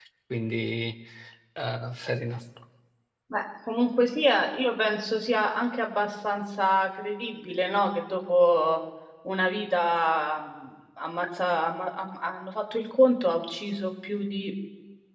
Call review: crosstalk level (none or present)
none